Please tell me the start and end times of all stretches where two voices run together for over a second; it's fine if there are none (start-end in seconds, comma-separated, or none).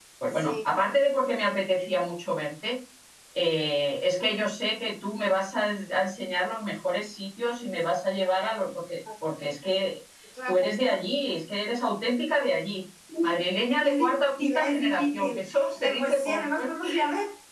13.8-16.4